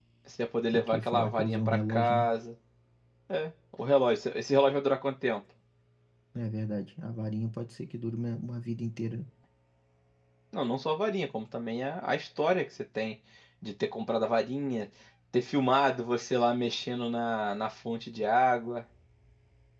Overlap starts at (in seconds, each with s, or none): 0.7 s